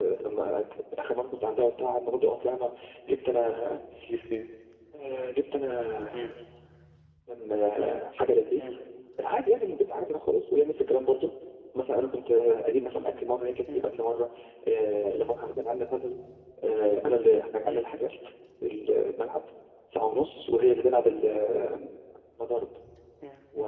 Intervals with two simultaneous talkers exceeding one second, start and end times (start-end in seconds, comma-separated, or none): none